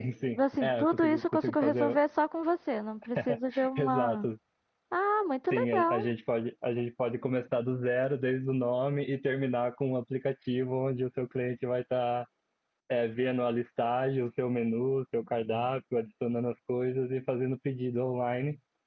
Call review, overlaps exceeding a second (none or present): present